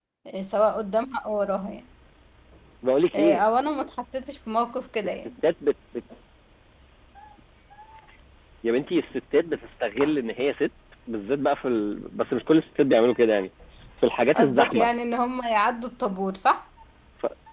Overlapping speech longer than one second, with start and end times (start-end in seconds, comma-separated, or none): none